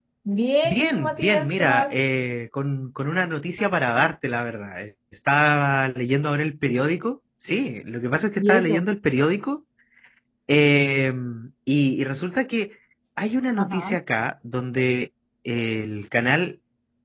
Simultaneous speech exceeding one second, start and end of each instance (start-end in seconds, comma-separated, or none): 0.7-2.0